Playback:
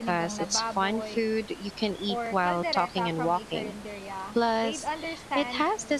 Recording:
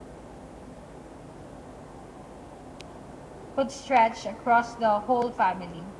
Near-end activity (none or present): present